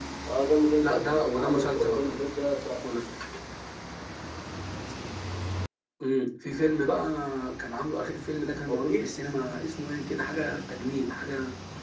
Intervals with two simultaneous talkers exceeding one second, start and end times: 0.8-2.2

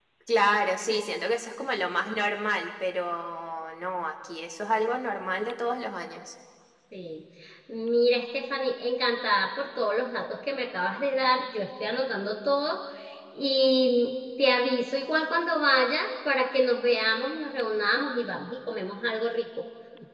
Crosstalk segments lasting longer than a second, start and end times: none

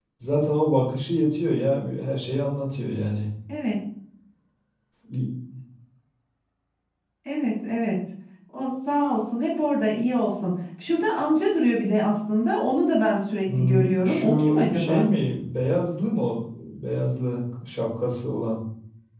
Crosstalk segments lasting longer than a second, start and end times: 13.5-15.1

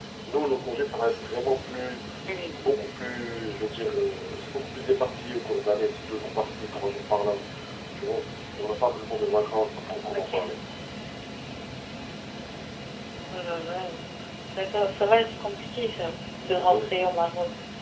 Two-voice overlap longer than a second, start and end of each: none

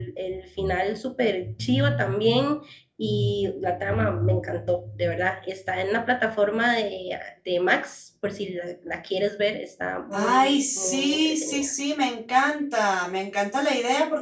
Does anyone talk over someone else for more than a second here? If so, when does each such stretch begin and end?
10.1-11.7

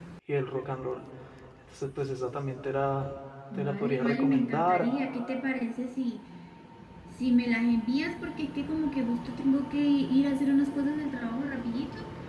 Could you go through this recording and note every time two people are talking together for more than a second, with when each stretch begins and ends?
3.5-4.9

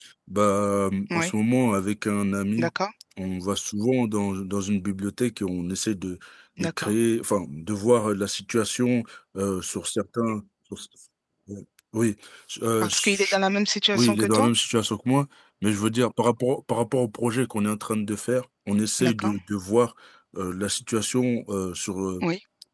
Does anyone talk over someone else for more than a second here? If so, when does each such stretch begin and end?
none

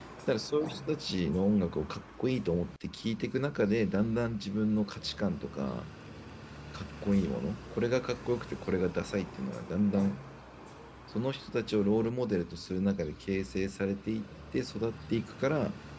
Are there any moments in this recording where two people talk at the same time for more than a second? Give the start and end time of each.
none

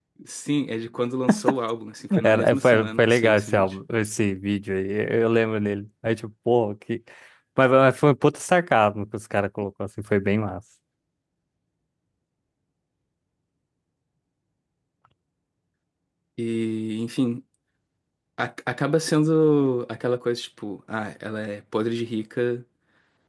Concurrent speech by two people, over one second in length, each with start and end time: 2.2-3.8

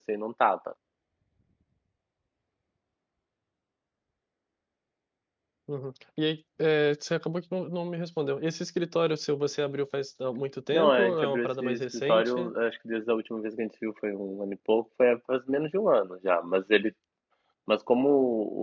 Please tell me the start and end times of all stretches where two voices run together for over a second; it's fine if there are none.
10.7-12.5

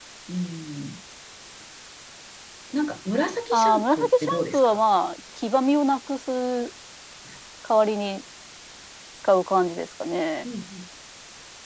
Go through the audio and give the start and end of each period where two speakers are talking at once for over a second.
3.5-4.8

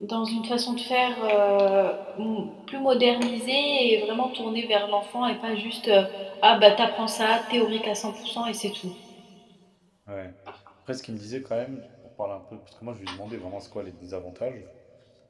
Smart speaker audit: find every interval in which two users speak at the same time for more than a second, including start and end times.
none

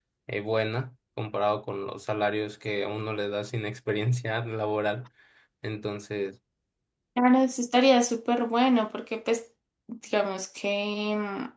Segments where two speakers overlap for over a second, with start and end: none

